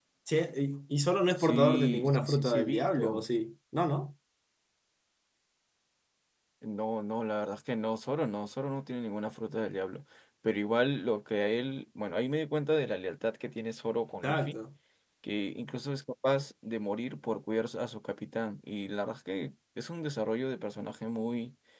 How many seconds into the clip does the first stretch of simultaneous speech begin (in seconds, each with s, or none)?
1.4 s